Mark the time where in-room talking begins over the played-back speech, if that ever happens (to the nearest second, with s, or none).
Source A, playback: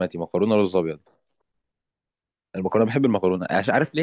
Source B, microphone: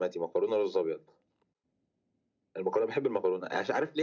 none